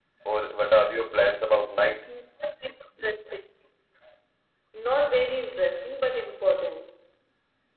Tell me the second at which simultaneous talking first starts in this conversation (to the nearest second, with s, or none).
none